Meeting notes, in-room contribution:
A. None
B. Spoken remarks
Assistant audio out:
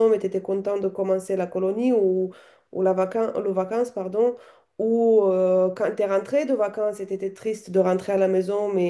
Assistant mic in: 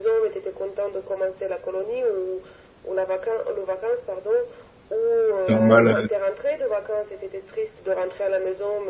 B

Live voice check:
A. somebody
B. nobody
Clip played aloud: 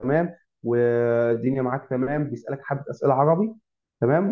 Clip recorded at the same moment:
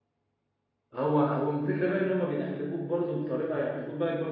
A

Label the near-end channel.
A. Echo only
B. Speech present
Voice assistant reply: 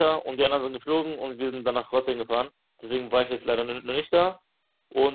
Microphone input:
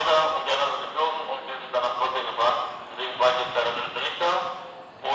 A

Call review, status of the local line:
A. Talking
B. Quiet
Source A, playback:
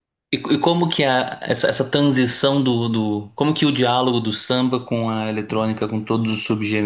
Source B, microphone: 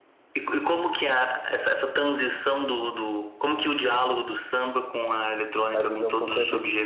A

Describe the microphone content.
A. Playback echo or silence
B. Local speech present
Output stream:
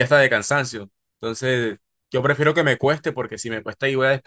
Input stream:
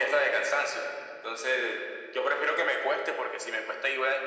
A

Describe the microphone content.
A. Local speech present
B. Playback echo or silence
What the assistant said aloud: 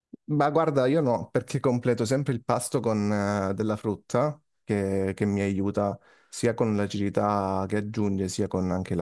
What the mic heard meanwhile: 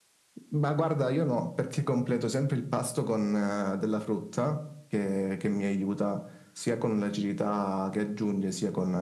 B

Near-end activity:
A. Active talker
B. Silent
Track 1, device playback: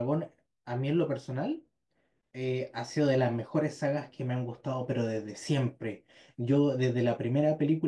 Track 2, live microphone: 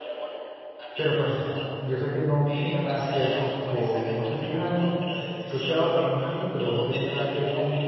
A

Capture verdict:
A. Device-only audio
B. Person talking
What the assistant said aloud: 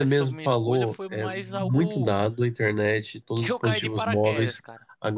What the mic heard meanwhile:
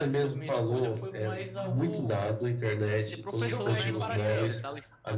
B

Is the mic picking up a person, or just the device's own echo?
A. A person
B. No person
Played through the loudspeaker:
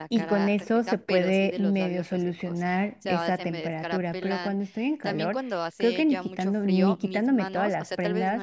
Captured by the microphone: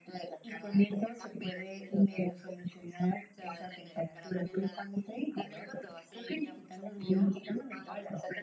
B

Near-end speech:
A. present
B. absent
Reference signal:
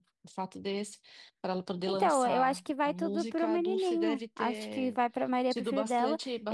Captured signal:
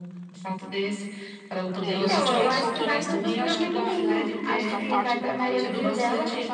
A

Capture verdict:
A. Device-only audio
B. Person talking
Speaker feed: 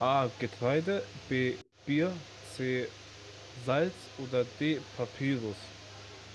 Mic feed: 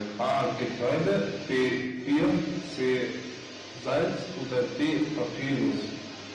A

